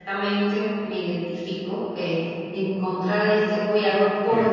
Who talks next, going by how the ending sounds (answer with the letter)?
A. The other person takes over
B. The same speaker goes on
B